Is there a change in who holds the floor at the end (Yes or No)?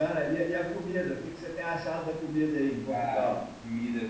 Yes